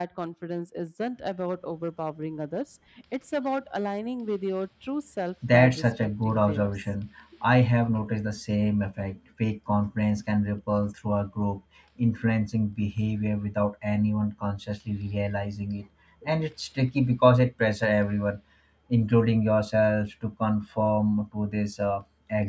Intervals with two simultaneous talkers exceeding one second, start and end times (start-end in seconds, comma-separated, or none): 5.5-6.9